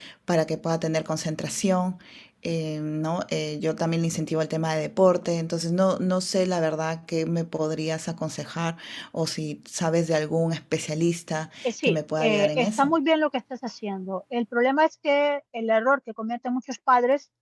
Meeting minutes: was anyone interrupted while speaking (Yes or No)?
Yes